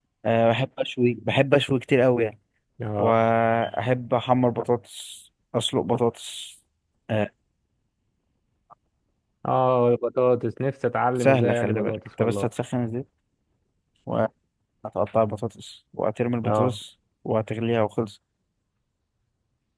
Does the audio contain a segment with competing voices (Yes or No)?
Yes